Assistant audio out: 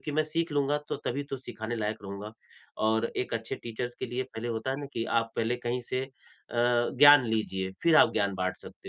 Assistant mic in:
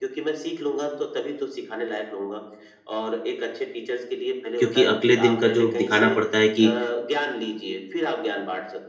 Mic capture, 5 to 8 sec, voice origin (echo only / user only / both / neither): both